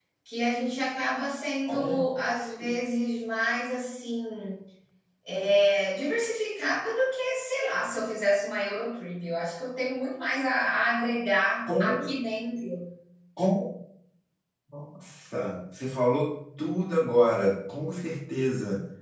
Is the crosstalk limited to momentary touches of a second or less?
Yes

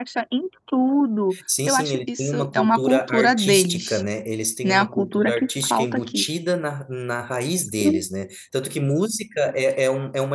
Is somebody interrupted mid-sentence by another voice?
Yes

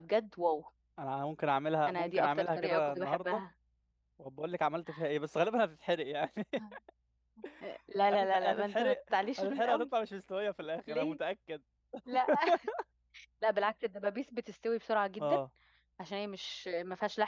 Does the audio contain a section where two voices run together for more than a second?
Yes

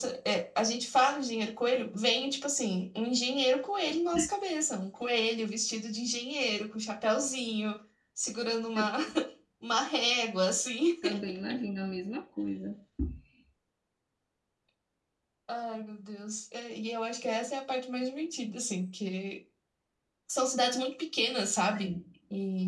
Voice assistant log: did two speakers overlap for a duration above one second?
No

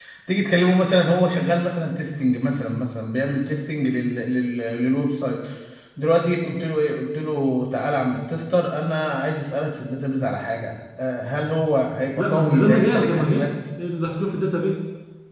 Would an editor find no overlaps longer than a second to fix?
No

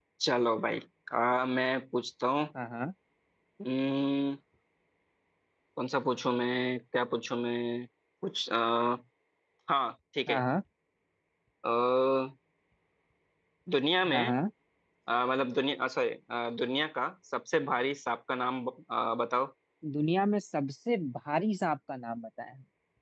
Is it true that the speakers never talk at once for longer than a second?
Yes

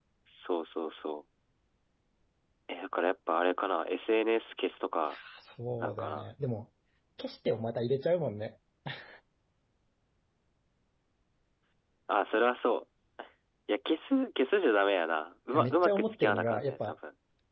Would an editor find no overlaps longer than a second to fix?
No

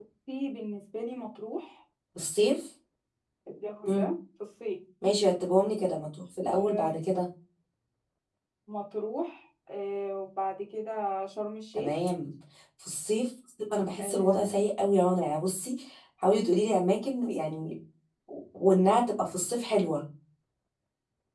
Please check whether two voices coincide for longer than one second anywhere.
No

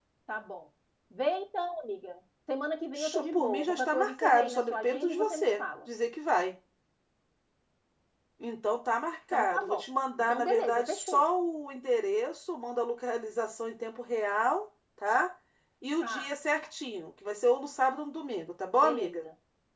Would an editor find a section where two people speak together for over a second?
Yes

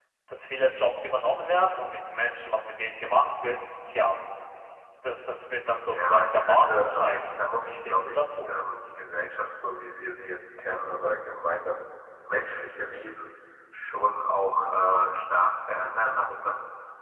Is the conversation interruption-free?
No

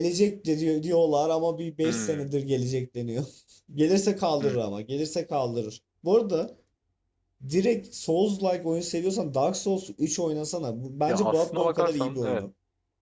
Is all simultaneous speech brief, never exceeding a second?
No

